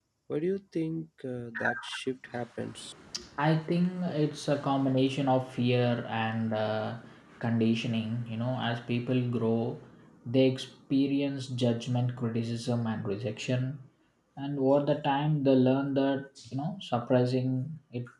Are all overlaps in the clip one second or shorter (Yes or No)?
Yes